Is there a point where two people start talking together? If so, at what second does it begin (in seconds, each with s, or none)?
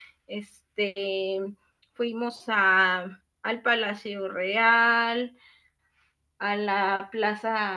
none